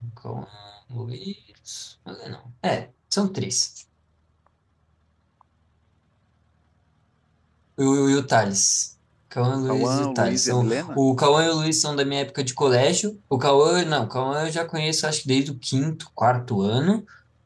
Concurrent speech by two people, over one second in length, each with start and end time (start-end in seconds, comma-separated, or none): 9.7-11.0